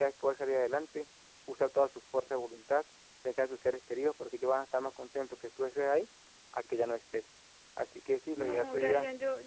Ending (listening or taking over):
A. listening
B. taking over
B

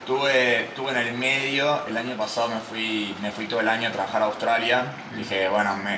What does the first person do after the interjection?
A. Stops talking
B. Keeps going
B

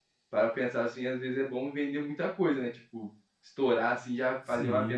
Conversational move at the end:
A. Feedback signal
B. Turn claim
A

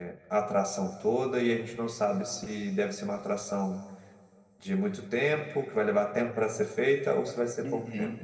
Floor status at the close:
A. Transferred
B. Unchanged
A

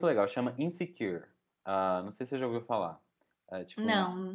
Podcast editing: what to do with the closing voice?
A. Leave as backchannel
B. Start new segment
A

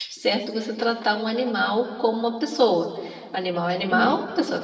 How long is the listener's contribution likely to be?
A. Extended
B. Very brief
B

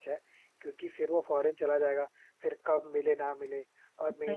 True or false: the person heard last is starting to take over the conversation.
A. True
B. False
B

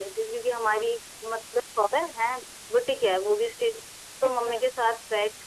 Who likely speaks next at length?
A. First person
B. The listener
A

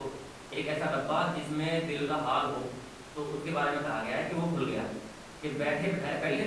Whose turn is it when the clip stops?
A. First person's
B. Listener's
A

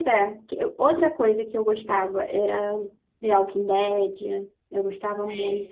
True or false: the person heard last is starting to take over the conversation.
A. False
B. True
A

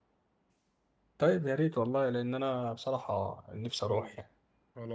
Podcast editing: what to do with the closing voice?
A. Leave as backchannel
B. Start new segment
B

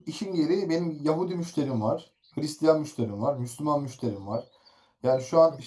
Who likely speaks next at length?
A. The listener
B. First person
B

